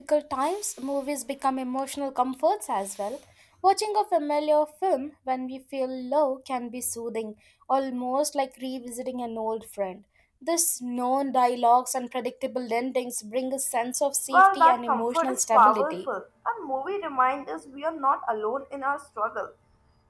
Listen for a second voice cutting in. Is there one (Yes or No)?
Yes